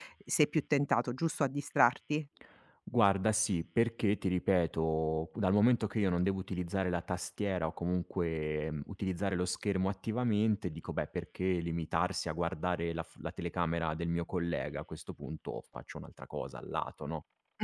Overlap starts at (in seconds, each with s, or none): none